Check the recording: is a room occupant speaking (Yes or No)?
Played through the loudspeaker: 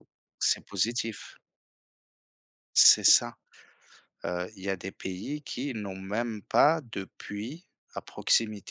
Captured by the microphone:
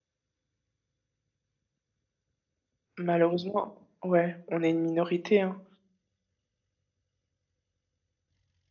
Yes